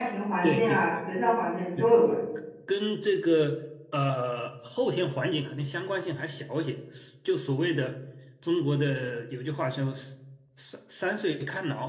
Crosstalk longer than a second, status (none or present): none